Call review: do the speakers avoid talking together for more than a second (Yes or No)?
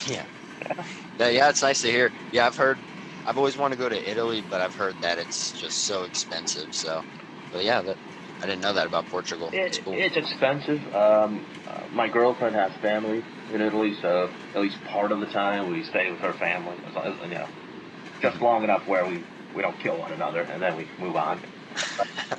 Yes